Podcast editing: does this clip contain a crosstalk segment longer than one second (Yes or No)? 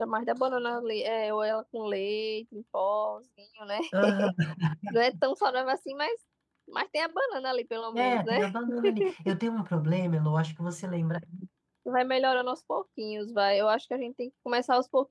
No